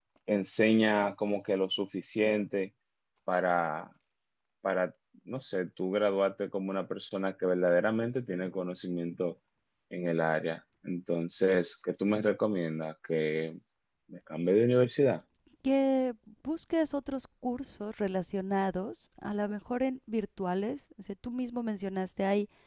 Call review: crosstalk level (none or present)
none